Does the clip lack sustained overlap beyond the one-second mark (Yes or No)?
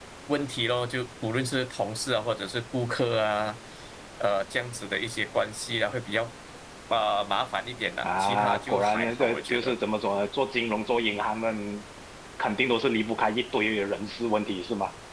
No